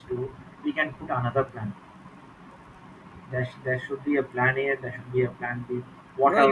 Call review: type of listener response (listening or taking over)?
taking over